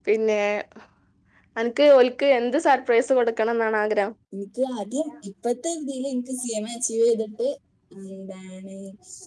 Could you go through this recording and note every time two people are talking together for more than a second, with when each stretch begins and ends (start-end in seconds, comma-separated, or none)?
none